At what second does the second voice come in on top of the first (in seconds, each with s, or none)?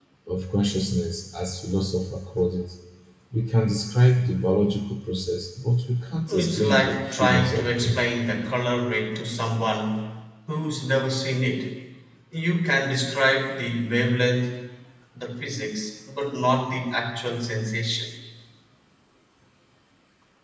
6.3 s